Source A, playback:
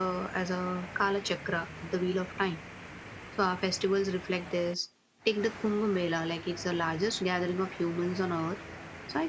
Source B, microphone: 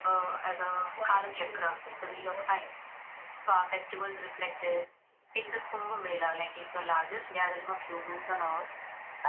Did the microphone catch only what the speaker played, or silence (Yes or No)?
No